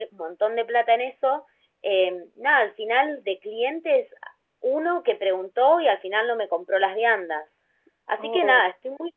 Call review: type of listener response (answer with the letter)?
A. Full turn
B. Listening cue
B